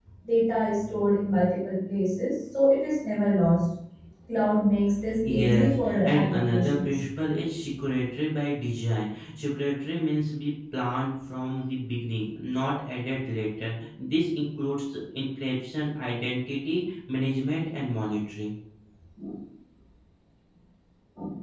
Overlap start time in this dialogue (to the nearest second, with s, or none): 5 s